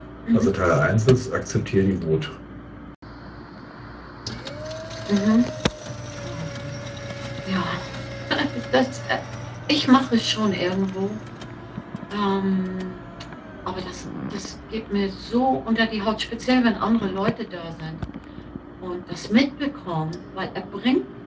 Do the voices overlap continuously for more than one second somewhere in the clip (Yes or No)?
No